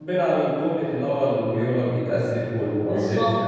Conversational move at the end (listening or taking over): taking over